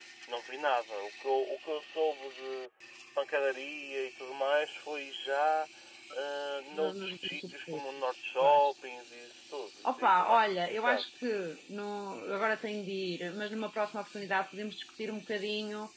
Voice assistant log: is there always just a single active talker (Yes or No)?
No